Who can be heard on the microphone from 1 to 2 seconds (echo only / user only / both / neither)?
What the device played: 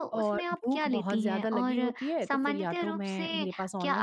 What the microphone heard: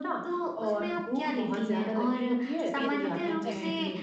echo only